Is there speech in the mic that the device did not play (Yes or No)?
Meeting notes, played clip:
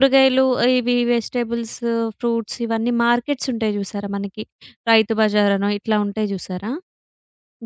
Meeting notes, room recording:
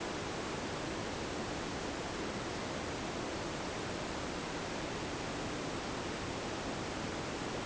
No